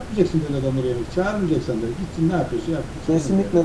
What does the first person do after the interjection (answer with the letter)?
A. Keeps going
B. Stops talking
B